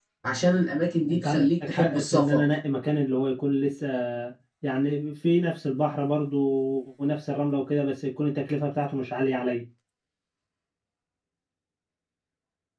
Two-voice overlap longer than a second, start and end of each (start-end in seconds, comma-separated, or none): 1.1-2.4